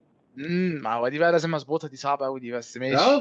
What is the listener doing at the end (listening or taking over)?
taking over